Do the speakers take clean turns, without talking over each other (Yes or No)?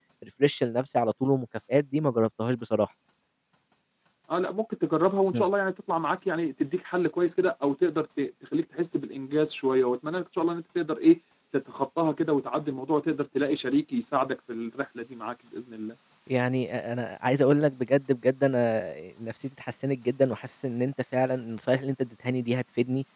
Yes